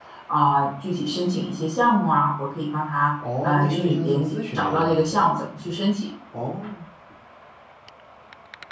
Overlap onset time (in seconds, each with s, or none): 3.2 s